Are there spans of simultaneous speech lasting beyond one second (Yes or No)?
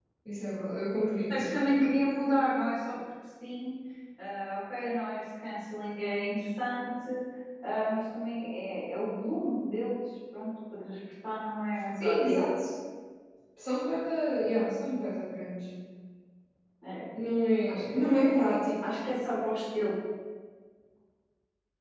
No